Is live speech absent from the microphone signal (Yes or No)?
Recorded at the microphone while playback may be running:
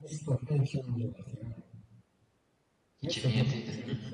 No